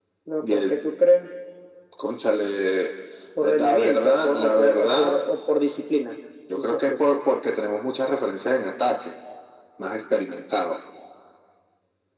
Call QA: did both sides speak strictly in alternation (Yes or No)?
No